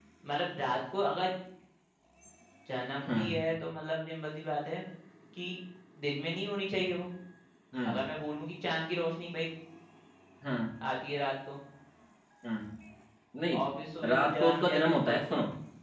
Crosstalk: present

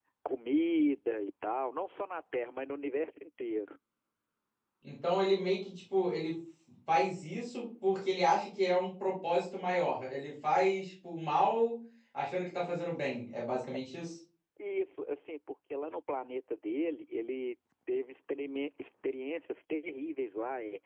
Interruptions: none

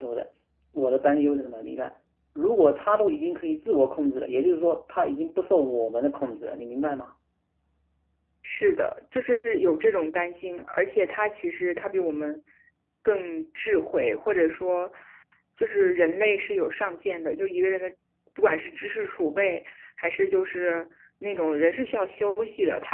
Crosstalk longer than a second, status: none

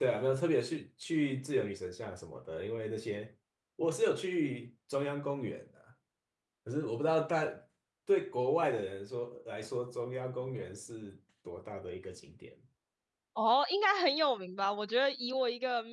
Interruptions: none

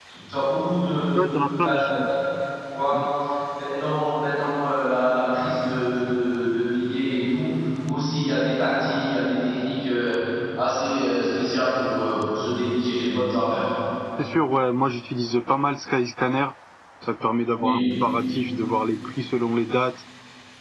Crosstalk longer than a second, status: none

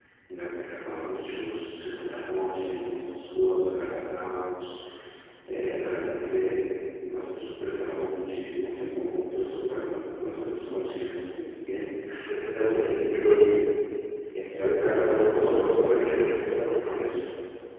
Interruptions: present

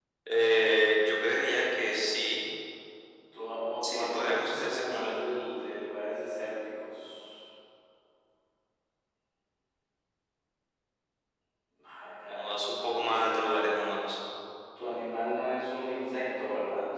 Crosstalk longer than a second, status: present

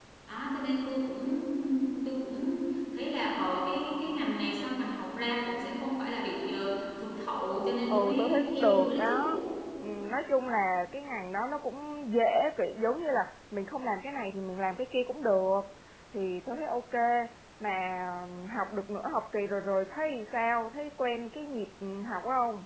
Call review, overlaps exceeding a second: present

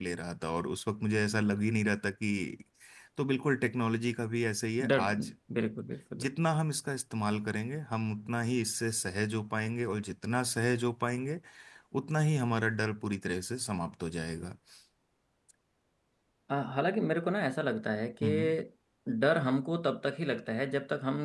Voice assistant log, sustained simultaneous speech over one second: none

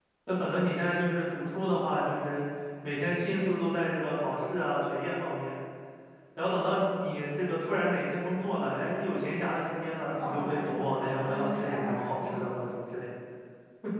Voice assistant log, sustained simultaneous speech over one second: present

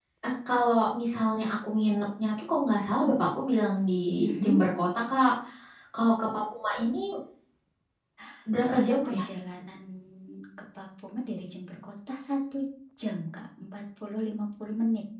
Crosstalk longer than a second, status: none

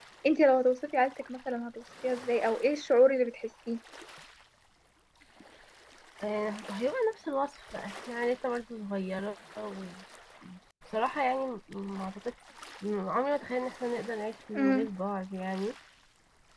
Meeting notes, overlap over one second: none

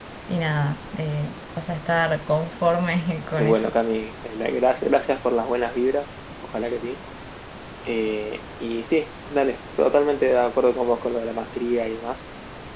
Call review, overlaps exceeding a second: none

